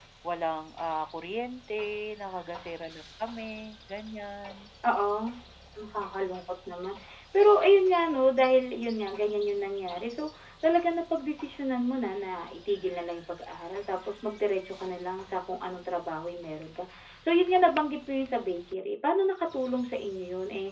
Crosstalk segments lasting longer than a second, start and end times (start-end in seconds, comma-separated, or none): none